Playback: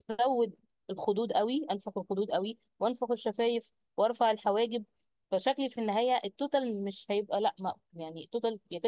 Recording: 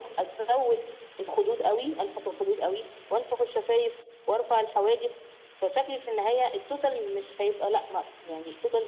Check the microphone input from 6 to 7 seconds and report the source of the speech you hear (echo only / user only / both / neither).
echo only